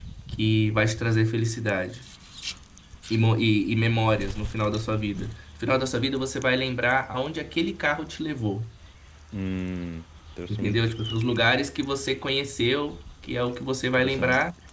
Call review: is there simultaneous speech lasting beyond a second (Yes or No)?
No